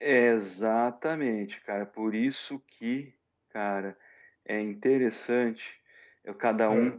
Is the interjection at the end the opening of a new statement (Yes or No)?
No